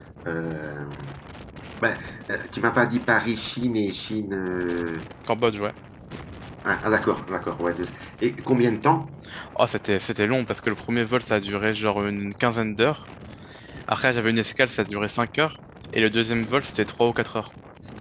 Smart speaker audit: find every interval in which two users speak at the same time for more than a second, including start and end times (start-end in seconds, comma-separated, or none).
none